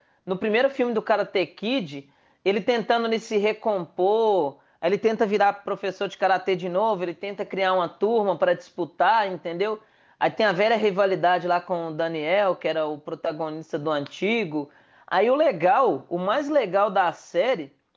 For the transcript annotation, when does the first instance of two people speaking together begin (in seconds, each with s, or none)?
none